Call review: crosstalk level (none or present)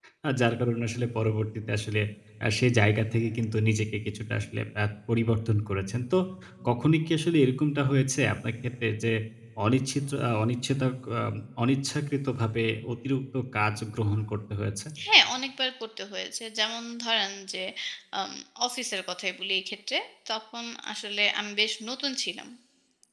none